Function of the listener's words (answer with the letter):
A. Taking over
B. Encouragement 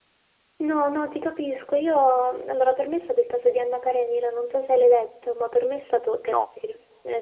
B